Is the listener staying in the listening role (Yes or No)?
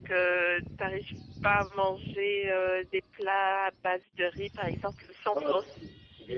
No